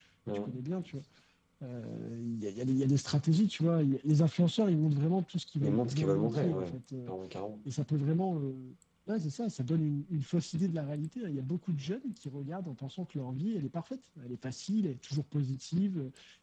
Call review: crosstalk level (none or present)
present